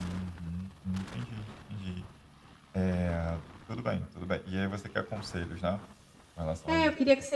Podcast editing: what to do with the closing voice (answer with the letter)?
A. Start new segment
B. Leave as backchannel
A